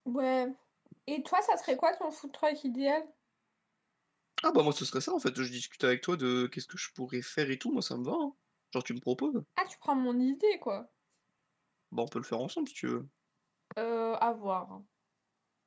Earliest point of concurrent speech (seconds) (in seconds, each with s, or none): none